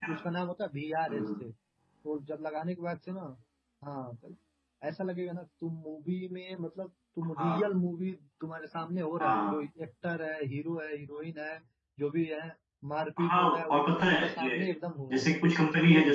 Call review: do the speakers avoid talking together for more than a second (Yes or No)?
No